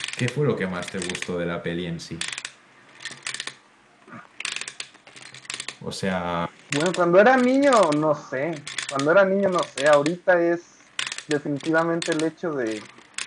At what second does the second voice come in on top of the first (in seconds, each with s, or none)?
none